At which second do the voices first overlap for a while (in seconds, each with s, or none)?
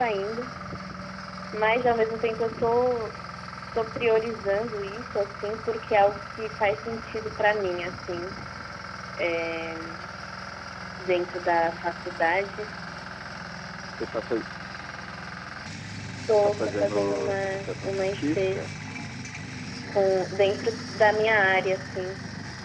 16.3 s